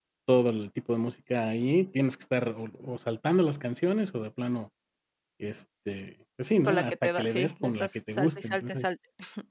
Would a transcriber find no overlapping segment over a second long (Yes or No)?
No